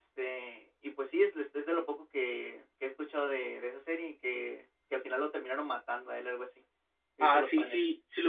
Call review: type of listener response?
taking over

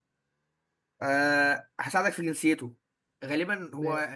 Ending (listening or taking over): listening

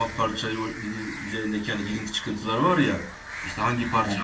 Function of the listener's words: listening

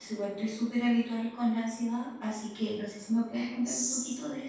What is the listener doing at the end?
taking over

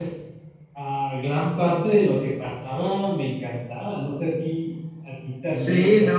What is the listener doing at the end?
taking over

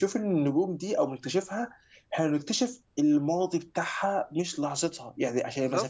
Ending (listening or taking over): listening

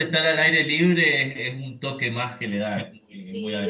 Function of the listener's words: taking over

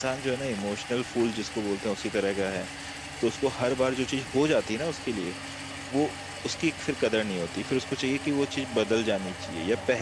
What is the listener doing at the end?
taking over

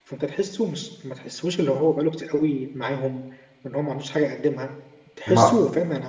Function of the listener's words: listening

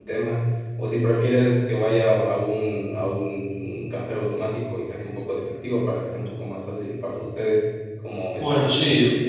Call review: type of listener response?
taking over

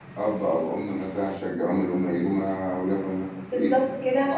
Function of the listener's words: taking over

